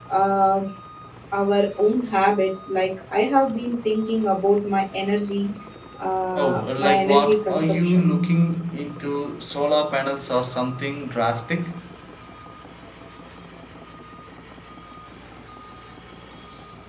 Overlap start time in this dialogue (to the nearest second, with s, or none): 6 s